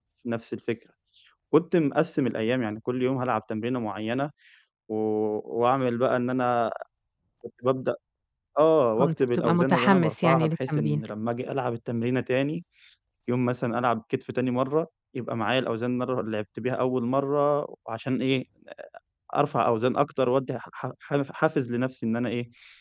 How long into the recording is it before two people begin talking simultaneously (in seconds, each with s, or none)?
9.0 s